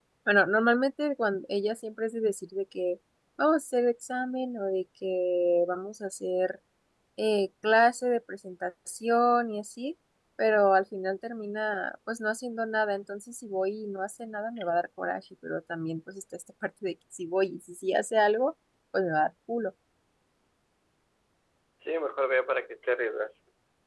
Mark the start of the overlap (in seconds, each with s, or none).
none